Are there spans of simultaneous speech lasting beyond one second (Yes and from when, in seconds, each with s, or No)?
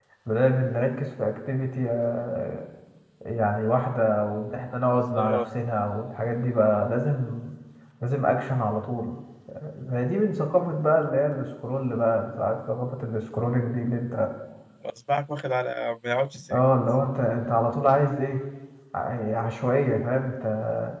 No